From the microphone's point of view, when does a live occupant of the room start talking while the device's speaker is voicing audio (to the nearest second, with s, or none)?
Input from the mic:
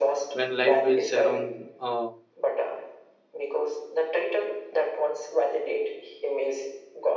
0 s